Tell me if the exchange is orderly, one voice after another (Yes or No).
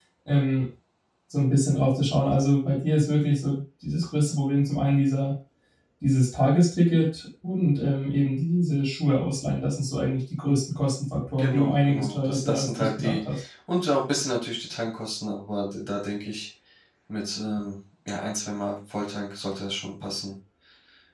No